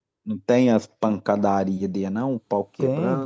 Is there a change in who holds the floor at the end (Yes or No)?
Yes